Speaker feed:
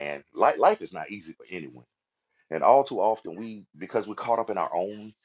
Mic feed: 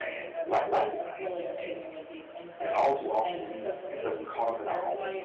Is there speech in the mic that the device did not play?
Yes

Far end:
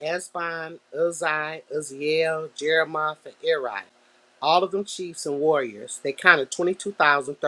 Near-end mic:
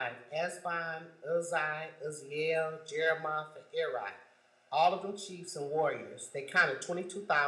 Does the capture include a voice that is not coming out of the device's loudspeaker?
No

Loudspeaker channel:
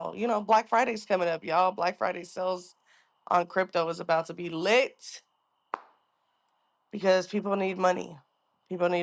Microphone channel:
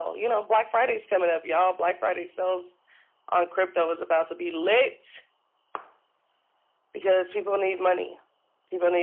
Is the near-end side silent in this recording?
Yes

